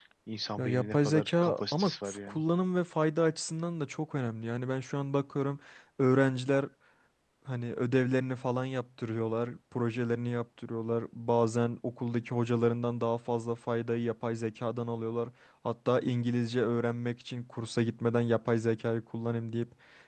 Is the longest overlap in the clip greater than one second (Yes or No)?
Yes